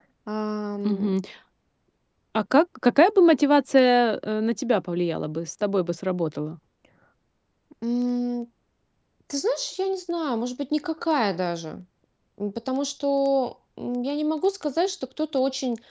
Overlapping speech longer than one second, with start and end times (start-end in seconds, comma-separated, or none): none